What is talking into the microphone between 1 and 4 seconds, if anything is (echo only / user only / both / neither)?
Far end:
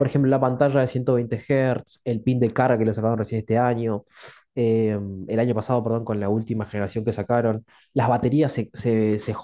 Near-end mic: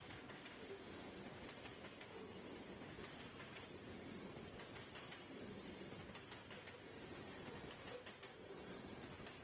neither